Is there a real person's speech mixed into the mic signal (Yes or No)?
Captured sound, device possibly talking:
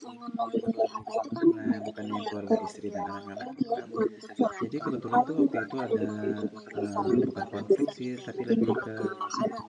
Yes